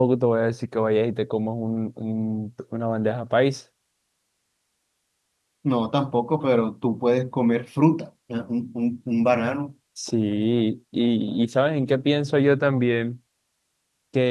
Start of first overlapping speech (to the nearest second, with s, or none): none